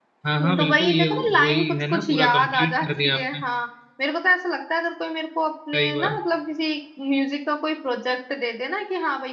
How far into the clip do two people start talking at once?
1 s

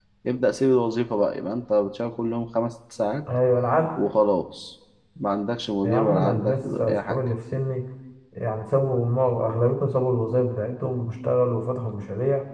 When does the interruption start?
6 s

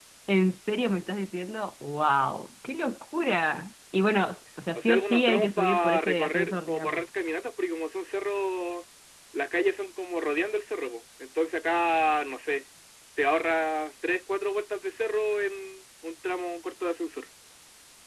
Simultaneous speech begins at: 5 s

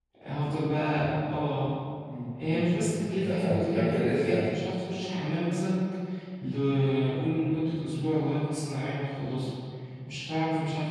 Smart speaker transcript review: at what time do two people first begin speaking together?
2 s

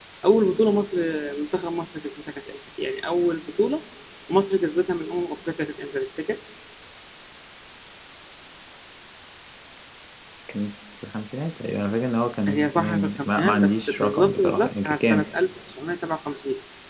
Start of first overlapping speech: 12 s

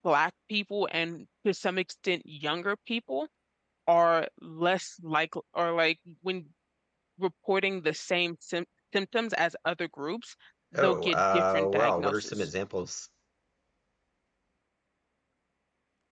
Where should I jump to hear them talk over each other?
11 s

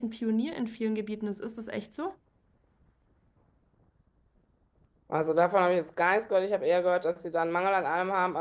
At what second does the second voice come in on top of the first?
none

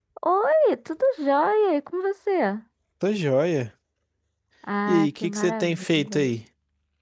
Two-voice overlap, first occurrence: 5 s

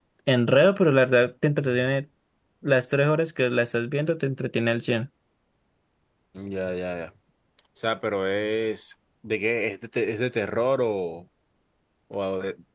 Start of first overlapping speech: none

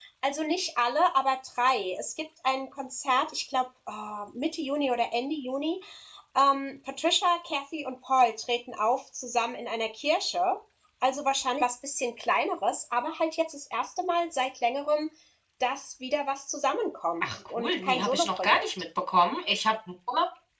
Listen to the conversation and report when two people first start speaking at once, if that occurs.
17 s

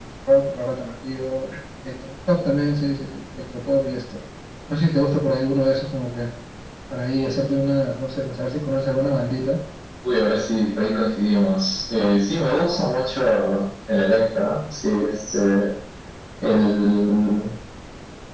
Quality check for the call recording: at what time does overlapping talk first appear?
none

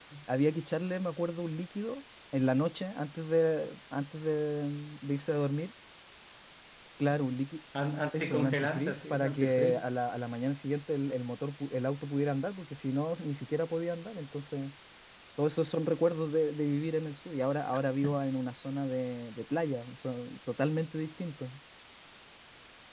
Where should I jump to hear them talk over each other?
8 s

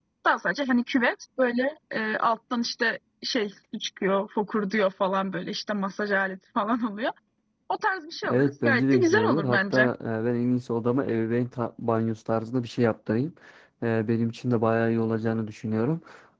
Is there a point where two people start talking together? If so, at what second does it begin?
8 s

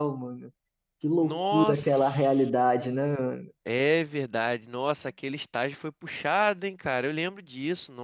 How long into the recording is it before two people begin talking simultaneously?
1 s

